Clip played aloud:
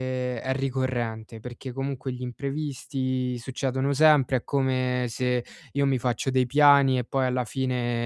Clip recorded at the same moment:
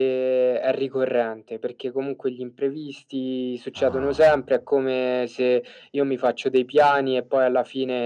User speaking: Yes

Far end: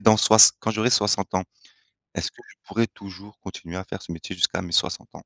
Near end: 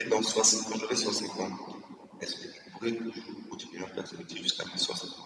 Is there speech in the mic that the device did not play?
No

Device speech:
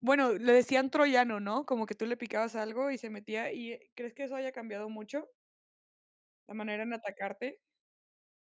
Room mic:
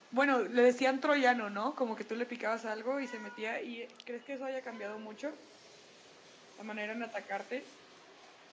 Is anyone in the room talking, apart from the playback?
No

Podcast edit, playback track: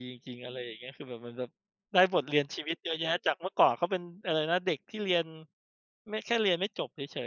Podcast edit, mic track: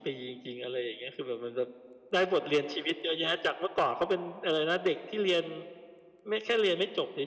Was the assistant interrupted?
No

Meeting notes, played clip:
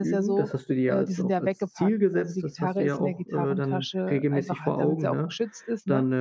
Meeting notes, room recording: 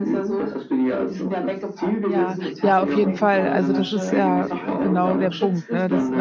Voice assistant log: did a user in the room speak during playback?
Yes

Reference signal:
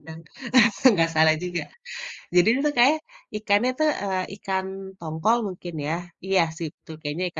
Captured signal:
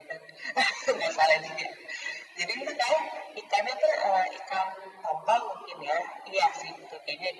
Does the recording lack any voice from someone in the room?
Yes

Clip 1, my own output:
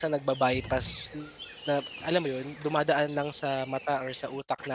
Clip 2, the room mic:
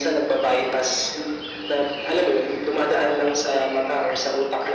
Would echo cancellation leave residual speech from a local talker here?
No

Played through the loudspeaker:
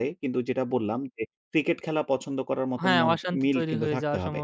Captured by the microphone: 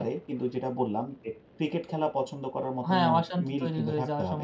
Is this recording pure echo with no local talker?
Yes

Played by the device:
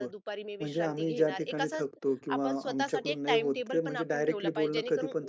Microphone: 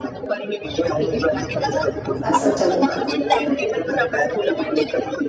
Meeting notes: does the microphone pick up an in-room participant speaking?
Yes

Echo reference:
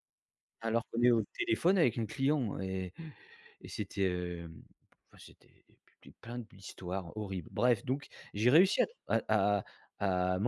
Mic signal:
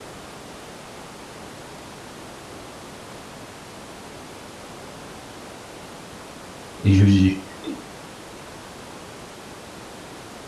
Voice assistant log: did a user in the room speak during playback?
Yes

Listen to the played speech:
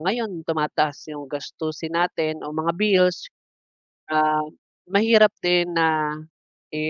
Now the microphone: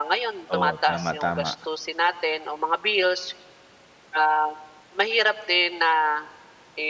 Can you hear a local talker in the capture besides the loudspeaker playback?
Yes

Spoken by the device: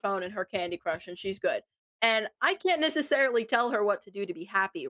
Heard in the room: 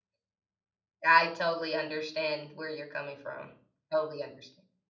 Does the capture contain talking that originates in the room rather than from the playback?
Yes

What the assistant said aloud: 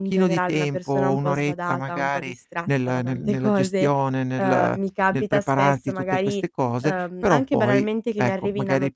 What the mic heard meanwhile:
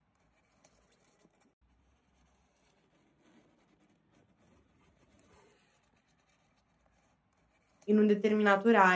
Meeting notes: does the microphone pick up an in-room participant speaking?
Yes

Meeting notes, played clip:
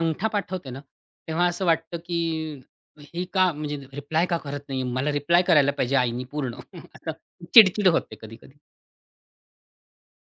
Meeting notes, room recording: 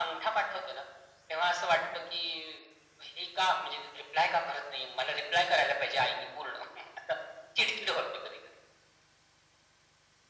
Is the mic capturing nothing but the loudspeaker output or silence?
Yes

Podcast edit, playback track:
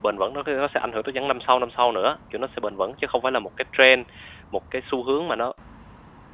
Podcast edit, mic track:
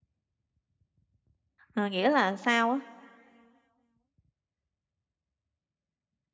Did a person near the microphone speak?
Yes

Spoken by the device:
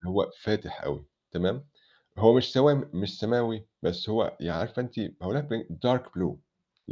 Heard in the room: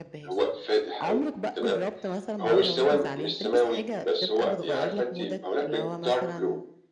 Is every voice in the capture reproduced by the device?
No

